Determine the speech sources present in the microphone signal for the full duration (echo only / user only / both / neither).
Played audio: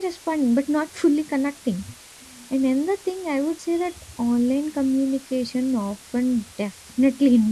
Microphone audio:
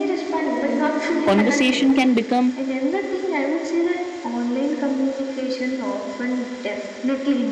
both